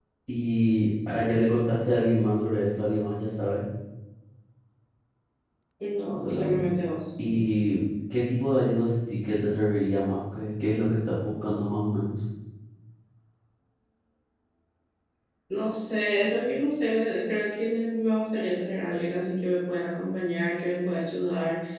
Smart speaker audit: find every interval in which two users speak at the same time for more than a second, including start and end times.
none

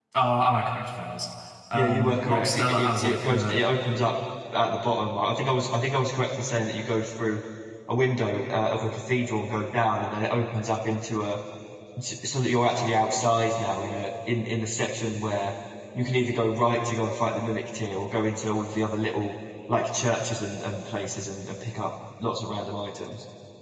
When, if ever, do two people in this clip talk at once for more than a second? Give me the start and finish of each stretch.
1.7-3.6

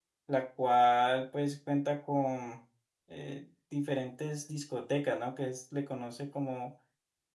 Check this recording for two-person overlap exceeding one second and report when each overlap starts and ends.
none

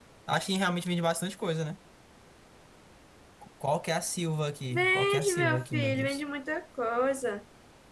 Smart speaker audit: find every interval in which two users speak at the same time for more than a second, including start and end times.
4.7-6.2

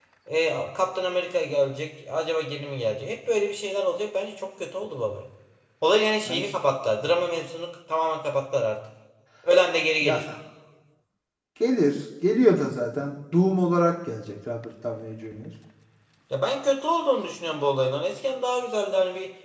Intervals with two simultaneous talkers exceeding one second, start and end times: none

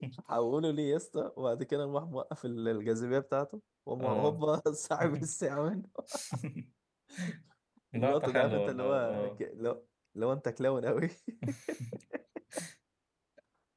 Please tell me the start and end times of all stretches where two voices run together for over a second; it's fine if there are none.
8.0-9.3

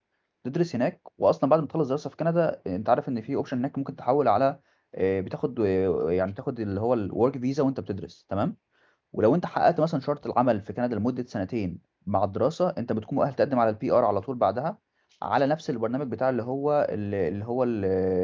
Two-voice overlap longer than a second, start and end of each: none

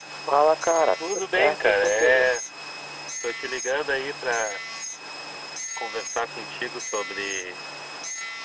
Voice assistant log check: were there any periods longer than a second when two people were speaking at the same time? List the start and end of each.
1.0-2.3

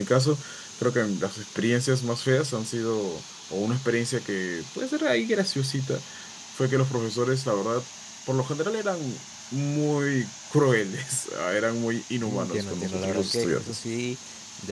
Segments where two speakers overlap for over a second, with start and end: 12.2-13.8

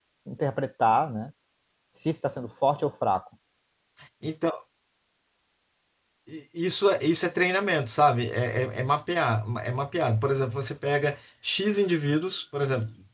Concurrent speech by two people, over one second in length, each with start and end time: none

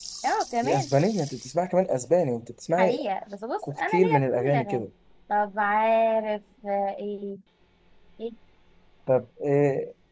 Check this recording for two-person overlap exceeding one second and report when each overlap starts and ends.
3.6-4.8

